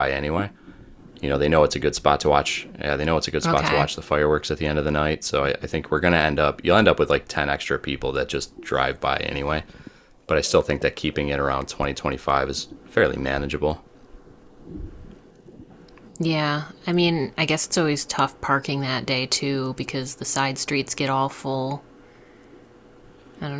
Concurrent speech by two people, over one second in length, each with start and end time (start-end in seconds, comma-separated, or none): none